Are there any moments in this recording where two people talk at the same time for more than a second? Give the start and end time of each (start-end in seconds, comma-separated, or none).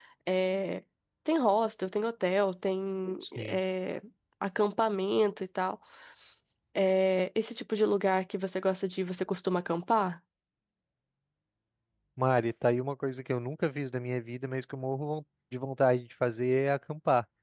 none